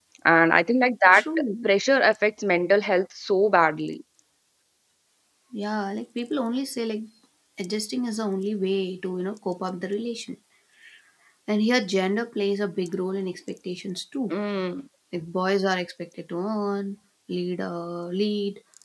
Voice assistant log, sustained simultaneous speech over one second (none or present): none